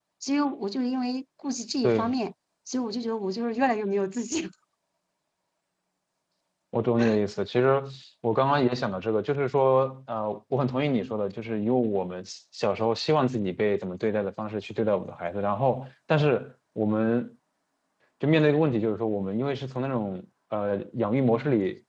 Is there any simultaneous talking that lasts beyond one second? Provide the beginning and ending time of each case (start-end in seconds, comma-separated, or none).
none